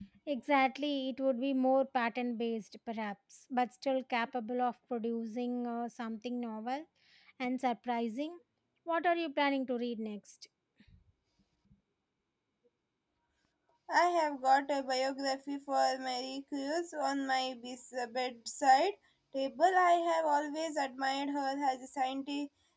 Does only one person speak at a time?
Yes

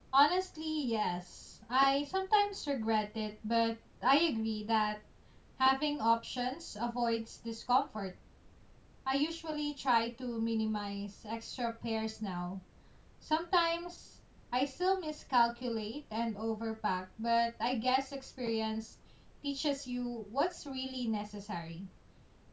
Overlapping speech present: No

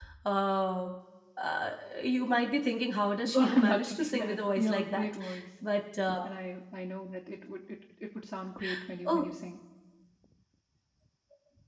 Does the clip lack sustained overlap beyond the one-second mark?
No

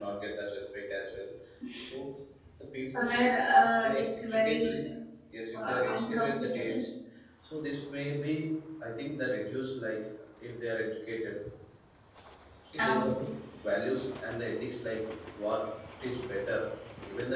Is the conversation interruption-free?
No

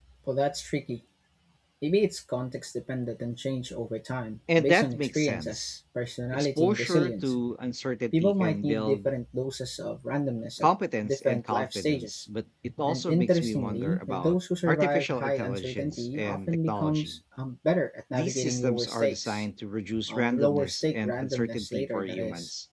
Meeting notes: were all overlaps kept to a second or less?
No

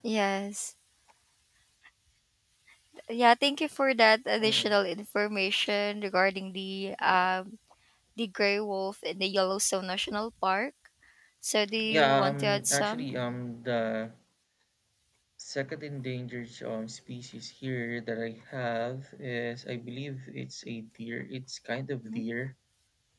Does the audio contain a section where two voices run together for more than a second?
Yes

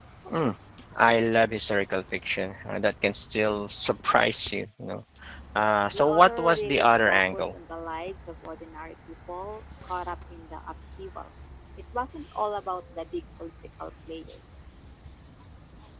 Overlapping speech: Yes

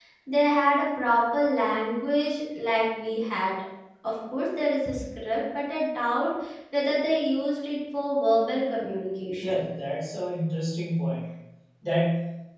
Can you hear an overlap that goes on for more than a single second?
No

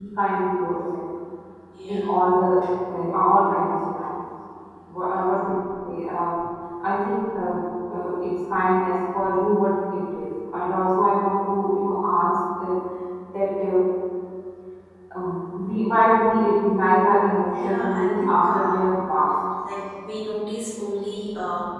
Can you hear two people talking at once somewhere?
Yes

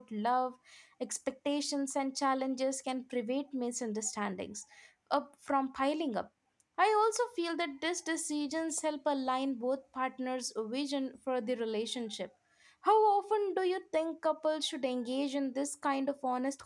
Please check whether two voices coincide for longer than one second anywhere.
No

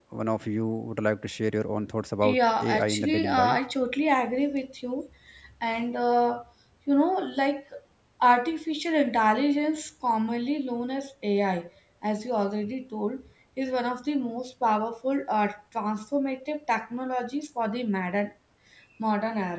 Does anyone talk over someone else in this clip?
Yes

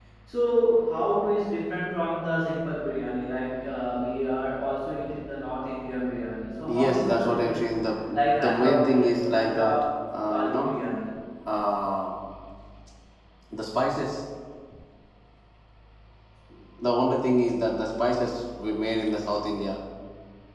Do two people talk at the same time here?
Yes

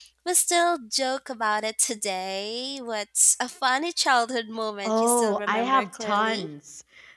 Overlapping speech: Yes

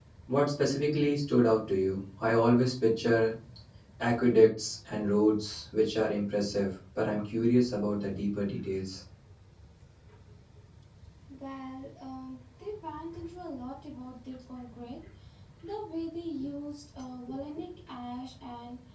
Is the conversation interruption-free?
Yes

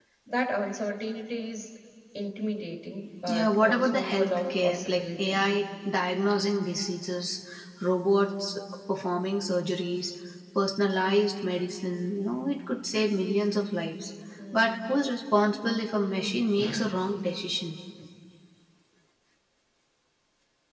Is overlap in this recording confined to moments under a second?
No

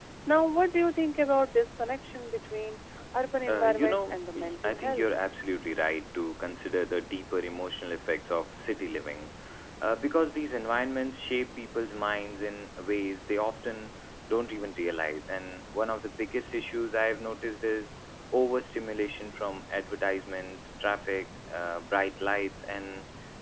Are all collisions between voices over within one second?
No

